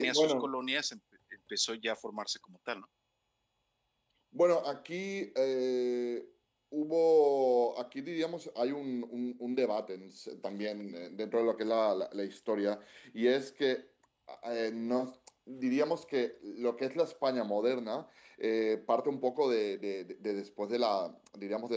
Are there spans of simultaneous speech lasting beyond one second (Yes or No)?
No